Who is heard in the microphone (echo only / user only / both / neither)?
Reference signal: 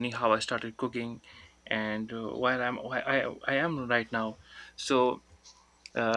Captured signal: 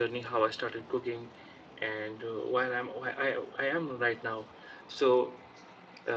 echo only